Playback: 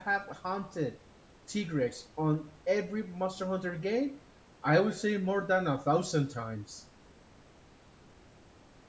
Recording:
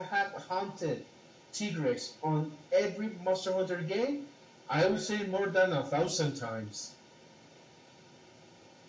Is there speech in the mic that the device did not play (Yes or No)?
No